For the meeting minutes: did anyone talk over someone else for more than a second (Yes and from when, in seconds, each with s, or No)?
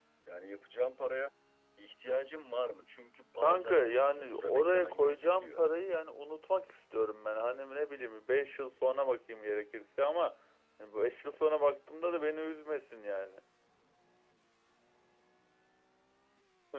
Yes, from 3.4 s